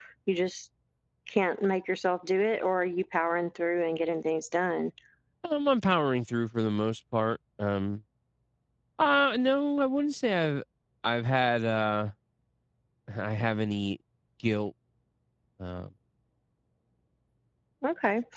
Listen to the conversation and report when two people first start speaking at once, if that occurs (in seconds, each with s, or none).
none